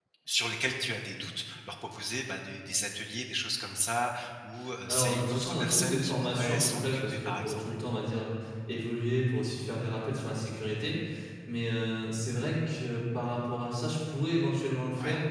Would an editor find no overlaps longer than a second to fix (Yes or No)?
No